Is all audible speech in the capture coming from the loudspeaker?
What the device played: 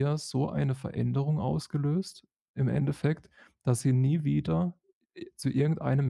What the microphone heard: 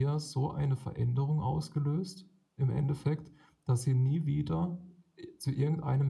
Yes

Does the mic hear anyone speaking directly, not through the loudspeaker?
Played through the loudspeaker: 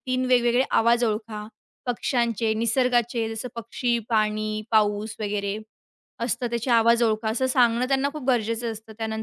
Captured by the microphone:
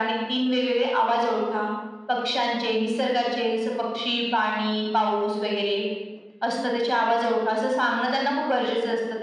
No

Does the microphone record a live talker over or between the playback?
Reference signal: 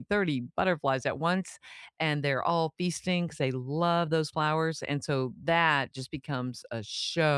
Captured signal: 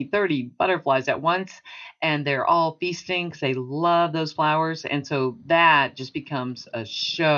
No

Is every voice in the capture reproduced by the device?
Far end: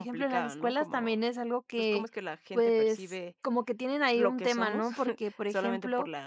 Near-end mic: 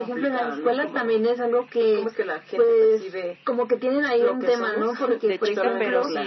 No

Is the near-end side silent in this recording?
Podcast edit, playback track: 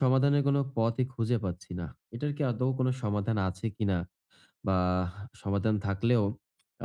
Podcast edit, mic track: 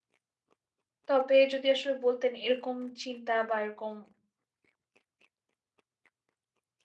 No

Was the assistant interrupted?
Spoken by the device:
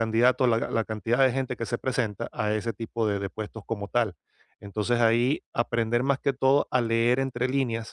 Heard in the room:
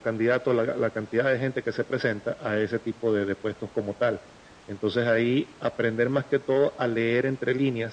No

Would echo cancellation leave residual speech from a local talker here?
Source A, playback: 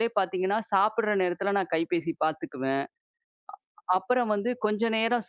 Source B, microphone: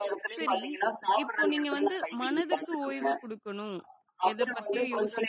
Yes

